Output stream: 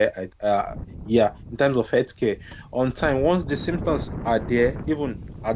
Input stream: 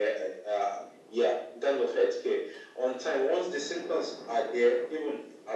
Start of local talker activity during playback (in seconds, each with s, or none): none